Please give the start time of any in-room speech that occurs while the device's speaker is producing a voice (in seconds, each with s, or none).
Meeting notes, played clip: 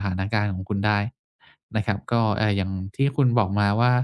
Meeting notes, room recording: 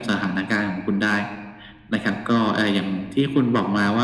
none